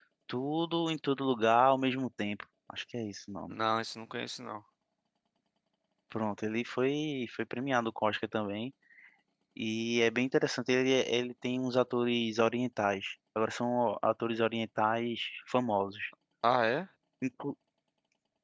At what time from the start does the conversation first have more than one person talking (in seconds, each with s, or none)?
none